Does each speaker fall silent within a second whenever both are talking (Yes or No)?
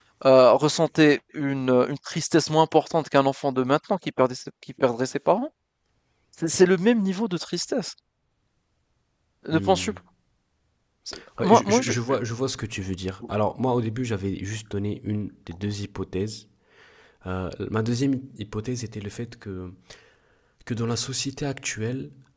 Yes